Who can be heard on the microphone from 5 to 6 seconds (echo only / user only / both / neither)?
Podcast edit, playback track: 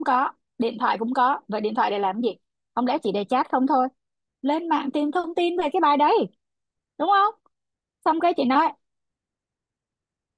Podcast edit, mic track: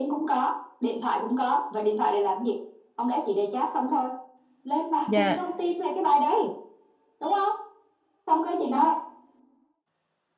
both